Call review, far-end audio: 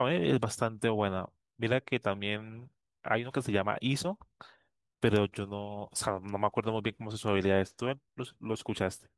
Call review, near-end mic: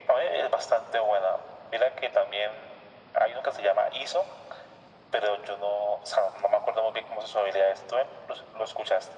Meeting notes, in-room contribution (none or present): none